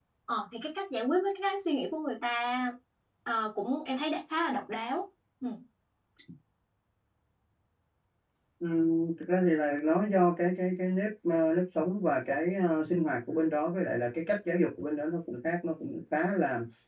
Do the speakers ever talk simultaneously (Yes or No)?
No